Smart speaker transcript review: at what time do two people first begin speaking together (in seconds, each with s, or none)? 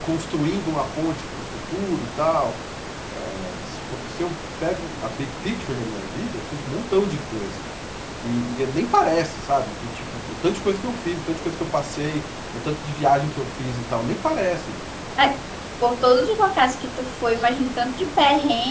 none